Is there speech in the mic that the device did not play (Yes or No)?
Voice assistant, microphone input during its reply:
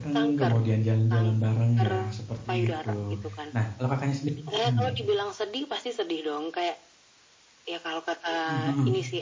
Yes